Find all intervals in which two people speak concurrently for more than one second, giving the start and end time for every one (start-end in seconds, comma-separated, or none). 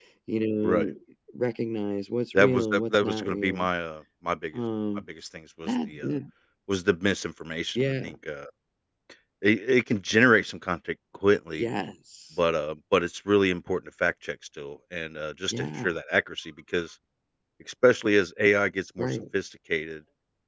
2.3-3.7